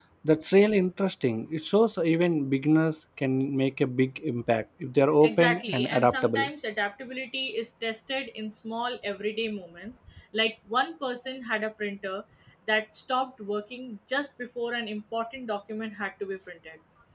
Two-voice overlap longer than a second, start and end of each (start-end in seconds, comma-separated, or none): 5.2-6.5